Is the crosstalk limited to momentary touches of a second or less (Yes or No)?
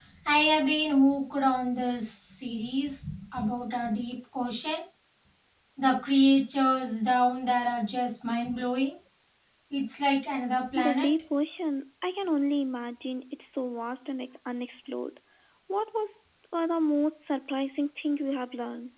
Yes